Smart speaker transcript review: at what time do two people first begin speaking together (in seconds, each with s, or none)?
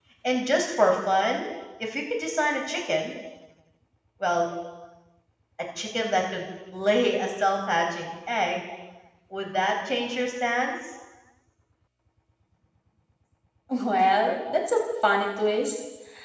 none